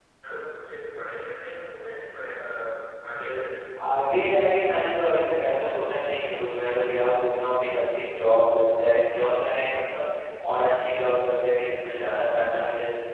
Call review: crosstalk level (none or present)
none